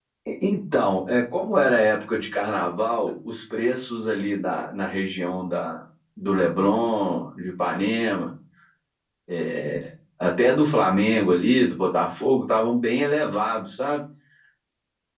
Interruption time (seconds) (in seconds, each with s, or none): none